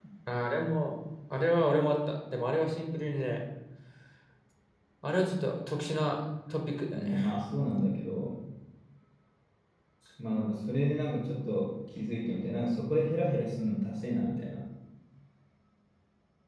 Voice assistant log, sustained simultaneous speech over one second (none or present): none